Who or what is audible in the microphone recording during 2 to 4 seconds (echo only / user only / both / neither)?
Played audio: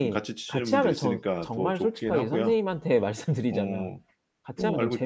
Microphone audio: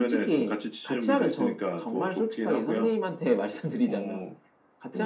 echo only